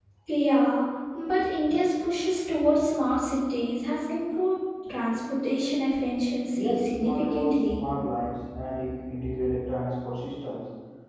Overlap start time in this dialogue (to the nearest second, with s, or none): 7 s